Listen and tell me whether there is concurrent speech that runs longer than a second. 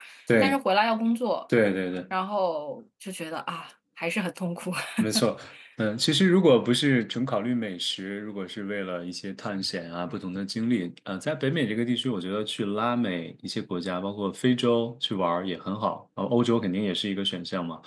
No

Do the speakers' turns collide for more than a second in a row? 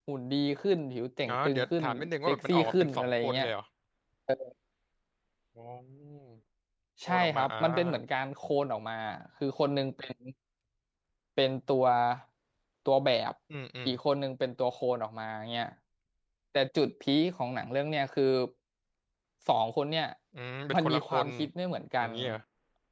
Yes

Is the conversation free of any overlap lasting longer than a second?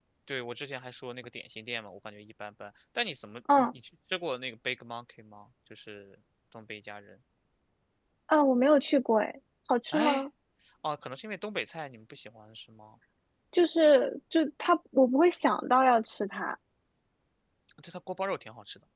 Yes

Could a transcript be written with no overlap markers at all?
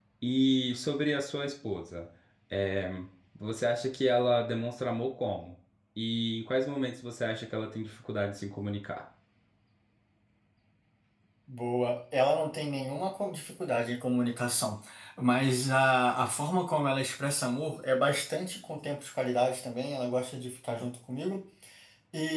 Yes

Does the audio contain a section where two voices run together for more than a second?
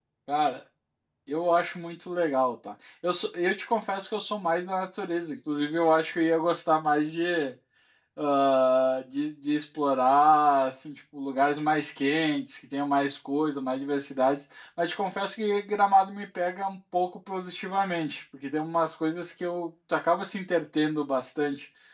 No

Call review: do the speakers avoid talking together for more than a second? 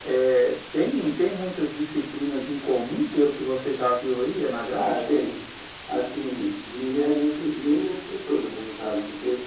Yes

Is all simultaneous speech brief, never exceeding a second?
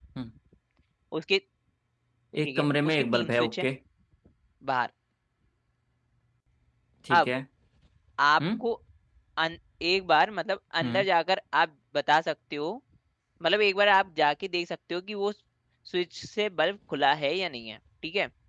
No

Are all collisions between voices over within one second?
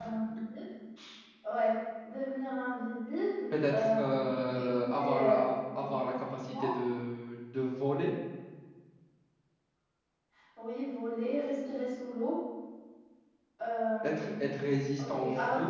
No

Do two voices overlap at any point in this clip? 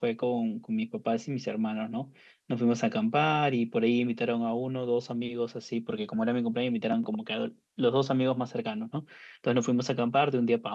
No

